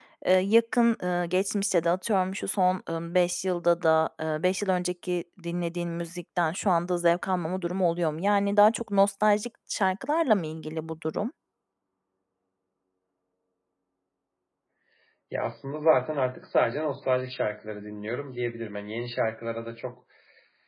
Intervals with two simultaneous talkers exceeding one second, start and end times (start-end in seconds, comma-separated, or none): none